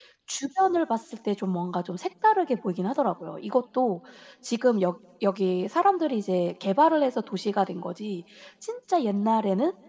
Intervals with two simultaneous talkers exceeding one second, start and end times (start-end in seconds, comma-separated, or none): none